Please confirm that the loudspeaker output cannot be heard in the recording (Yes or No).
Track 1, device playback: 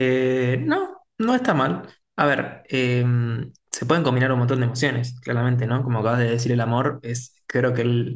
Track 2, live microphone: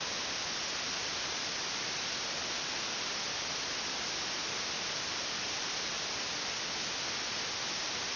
Yes